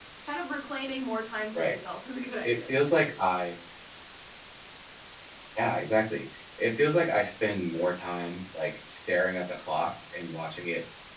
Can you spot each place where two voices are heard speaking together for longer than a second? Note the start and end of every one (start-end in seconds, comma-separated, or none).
none